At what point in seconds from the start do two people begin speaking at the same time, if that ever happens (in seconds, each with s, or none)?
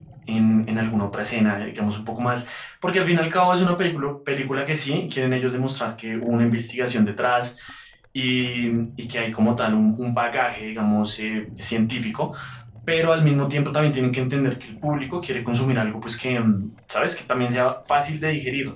none